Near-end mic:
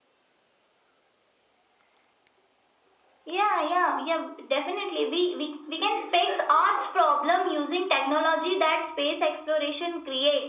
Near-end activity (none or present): none